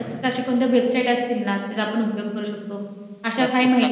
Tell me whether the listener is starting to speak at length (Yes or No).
Yes